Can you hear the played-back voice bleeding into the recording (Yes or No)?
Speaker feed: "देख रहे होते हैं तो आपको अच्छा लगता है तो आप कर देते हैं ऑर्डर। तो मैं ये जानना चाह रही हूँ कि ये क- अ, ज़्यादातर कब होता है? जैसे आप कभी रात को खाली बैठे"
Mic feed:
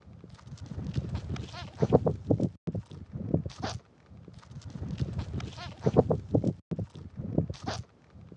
No